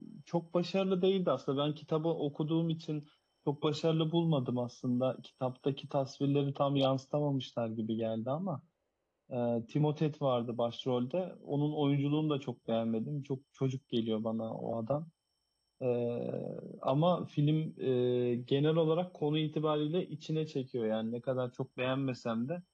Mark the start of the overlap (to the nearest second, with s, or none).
none